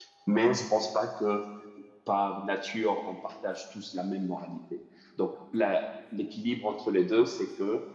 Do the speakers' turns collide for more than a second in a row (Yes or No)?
No